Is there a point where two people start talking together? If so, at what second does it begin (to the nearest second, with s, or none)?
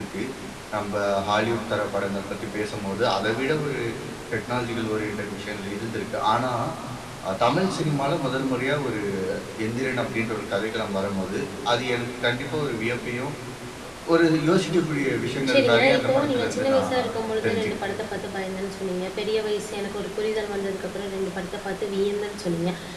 16 s